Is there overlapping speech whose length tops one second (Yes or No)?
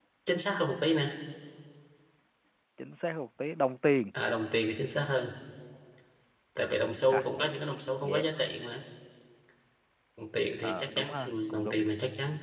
Yes